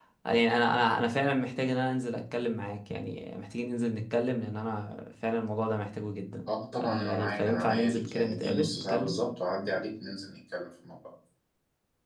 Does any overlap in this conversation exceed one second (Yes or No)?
Yes